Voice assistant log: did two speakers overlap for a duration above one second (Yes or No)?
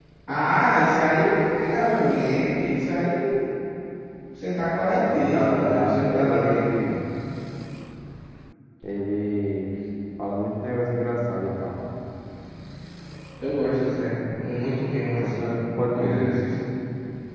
Yes